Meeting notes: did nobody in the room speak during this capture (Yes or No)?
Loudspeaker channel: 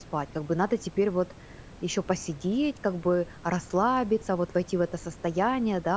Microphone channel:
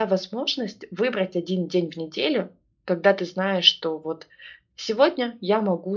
No